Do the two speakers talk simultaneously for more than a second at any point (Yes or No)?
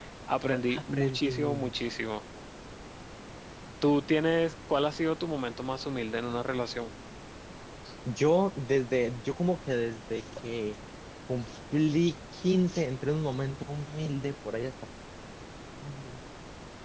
Yes